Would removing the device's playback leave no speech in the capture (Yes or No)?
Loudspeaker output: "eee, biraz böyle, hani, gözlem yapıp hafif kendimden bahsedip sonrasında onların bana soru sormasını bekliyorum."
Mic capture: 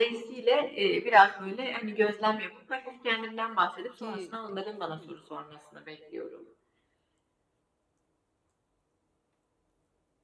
No